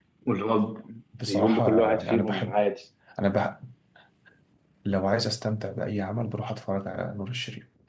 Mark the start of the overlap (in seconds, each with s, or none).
1.3 s